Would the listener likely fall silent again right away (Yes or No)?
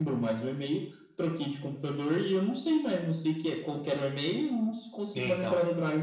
Yes